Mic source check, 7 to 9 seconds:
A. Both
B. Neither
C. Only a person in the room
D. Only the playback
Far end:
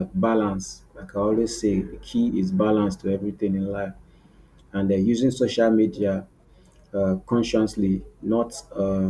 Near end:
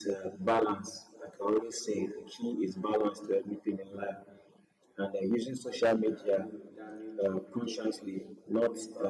A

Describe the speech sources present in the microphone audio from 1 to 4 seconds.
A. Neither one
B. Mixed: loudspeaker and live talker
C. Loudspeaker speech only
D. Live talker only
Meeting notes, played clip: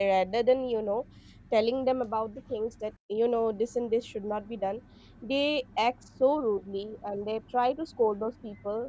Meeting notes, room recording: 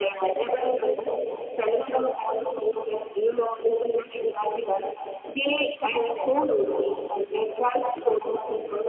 C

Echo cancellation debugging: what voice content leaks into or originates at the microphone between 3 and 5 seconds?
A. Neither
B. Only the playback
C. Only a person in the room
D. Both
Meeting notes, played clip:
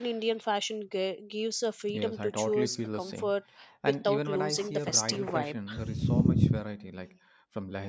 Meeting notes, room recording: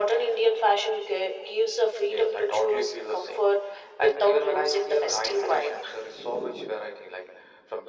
B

